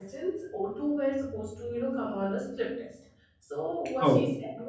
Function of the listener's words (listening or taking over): listening